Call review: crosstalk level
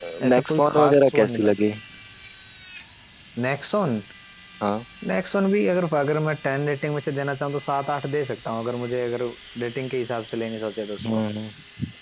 present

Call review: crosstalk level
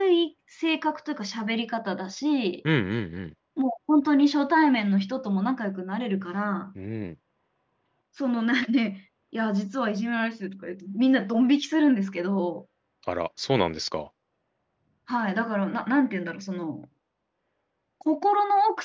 none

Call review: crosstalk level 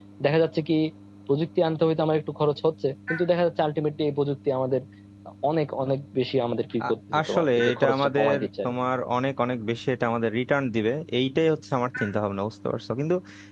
present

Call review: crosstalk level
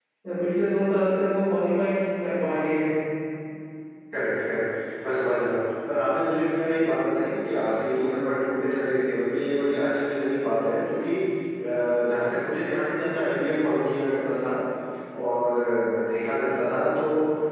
none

